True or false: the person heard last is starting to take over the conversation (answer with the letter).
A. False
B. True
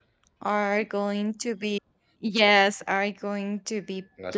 A